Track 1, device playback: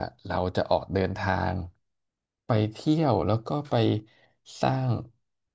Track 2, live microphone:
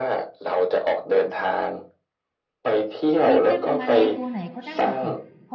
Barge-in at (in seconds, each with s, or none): 3.3 s